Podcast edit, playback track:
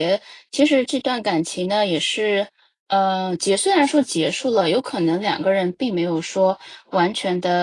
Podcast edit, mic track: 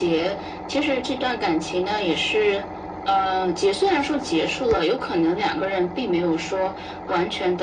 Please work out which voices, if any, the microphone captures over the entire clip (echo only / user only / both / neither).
echo only